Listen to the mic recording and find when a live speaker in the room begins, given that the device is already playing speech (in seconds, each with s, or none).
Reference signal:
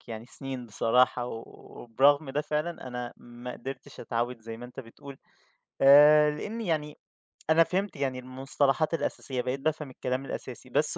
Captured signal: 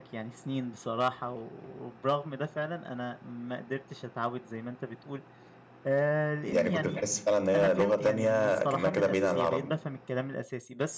6.5 s